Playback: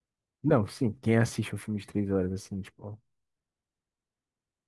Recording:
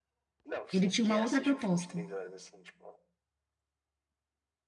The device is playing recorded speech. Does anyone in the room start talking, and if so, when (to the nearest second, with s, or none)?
1 s